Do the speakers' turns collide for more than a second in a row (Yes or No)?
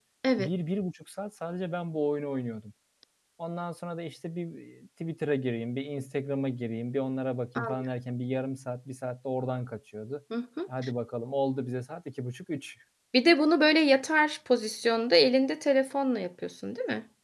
No